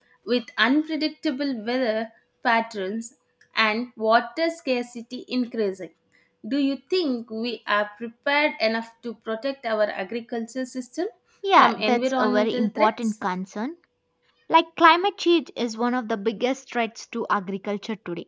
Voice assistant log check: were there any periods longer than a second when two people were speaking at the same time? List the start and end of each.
11.6-13.1

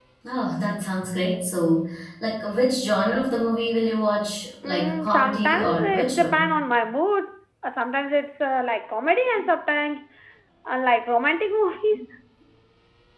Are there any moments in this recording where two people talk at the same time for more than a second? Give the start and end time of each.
4.6-6.5

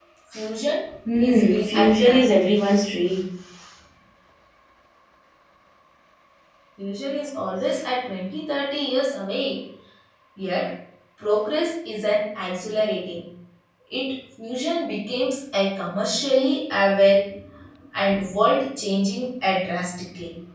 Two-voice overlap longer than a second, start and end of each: 1.2-2.5

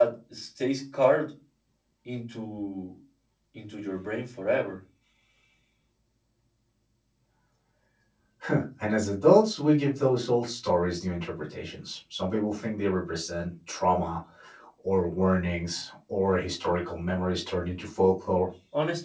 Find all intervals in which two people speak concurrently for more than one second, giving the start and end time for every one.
none

